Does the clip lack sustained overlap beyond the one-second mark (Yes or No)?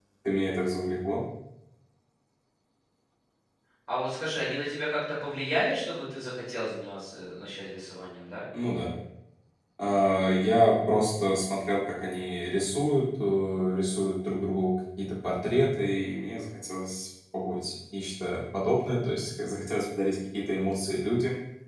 Yes